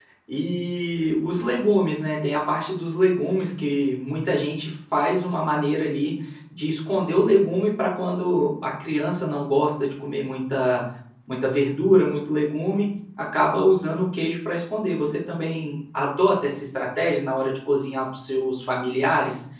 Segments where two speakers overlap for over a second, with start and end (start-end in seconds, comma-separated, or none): none